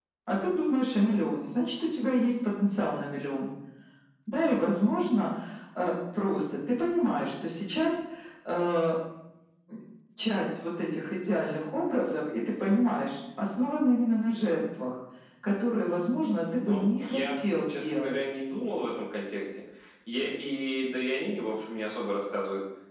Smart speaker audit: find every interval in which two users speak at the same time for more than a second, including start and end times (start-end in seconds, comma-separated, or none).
16.7-18.1